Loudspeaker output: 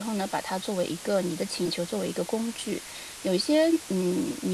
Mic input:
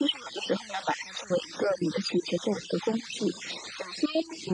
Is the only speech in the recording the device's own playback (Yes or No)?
Yes